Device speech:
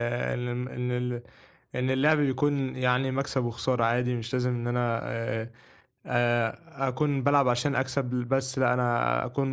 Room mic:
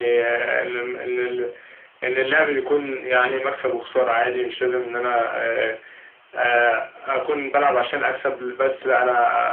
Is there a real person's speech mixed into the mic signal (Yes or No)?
No